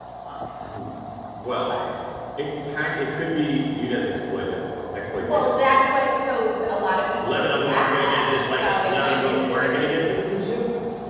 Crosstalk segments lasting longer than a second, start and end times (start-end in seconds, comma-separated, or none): 7.2-10.0